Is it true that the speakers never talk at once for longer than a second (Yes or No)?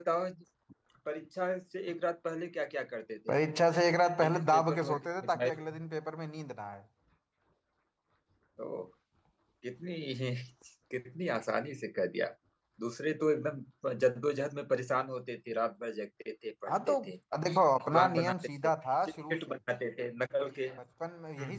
No